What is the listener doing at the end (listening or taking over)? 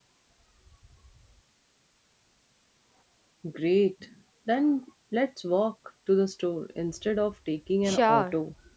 taking over